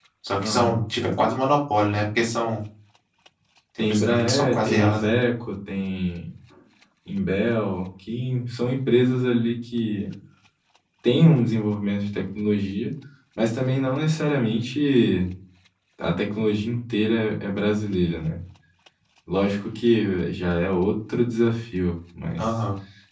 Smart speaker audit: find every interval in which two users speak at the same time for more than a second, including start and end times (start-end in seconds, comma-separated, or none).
3.8-5.1